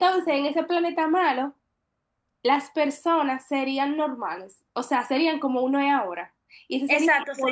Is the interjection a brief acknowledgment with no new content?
No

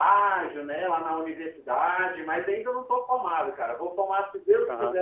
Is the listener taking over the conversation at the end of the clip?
No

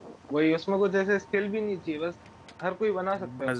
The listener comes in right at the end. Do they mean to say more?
Yes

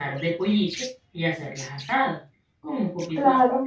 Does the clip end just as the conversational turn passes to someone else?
No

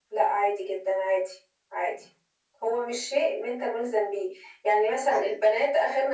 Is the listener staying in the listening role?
Yes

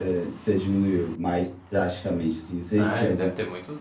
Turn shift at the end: Yes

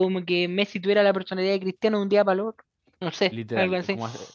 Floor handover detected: Yes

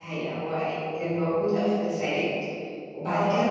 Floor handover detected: No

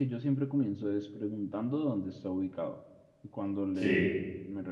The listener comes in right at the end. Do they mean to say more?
No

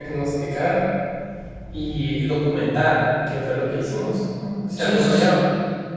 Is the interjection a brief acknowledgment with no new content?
No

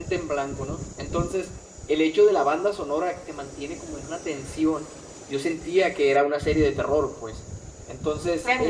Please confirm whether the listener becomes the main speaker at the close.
Yes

